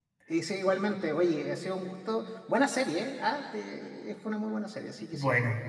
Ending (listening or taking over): taking over